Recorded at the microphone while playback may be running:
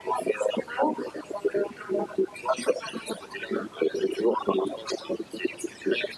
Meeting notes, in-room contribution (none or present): none